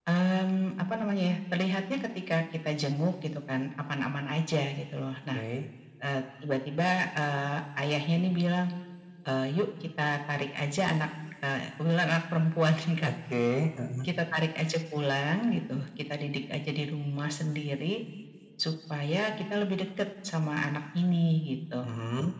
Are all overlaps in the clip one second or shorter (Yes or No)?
Yes